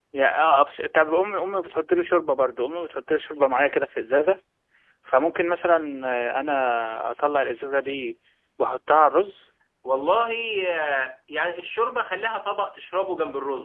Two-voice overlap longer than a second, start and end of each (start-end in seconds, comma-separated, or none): none